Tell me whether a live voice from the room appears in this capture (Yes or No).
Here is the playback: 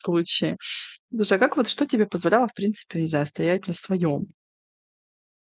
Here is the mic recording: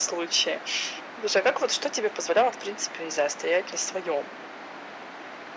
No